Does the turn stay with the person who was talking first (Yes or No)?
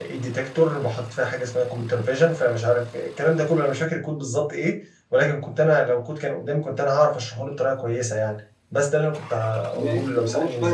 No